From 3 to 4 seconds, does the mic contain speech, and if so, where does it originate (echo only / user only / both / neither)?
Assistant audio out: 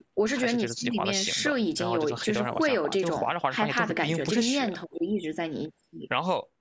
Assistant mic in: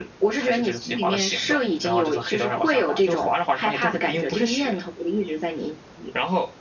echo only